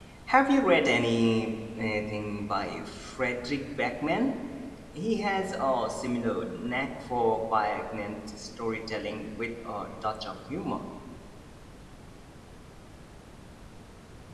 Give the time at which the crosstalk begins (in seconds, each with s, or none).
none